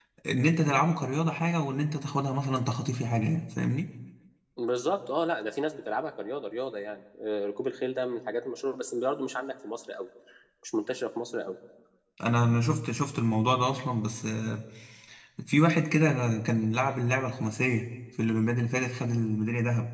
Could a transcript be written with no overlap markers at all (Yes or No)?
Yes